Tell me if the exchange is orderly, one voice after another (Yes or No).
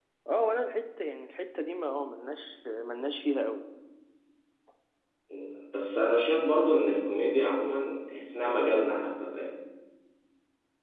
Yes